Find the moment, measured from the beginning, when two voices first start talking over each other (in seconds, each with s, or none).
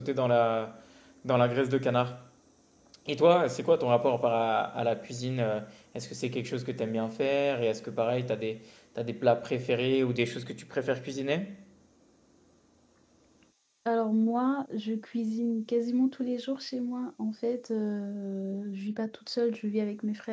none